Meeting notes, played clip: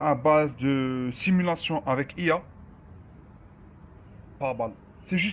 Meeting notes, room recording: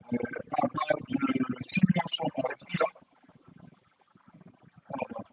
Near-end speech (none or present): none